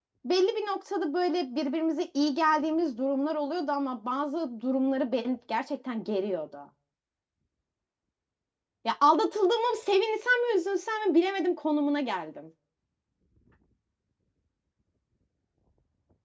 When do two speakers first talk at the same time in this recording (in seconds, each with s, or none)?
none